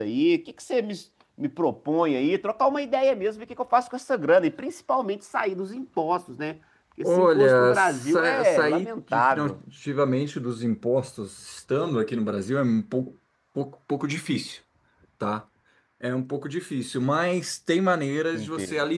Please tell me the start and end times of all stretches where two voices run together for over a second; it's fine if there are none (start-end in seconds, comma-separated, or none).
7.0-9.6